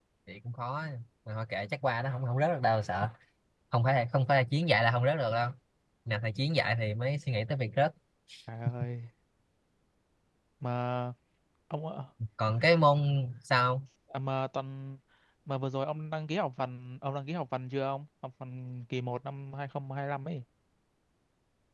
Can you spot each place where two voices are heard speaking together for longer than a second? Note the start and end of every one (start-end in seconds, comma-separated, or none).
none